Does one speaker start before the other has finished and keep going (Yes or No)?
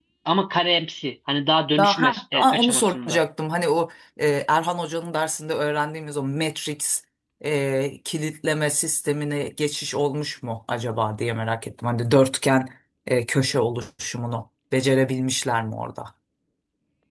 Yes